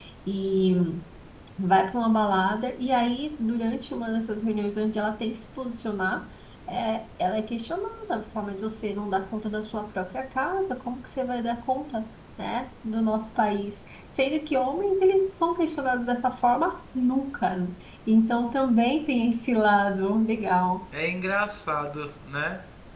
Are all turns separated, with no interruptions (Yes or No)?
Yes